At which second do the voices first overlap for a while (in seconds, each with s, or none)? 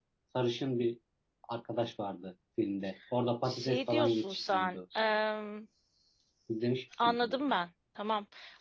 3.4 s